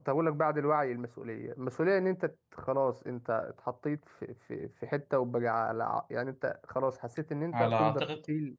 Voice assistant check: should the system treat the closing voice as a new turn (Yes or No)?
No